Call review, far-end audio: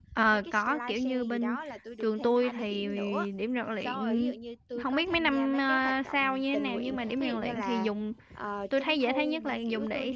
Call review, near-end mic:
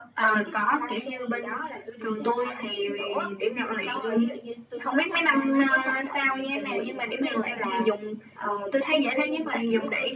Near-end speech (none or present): none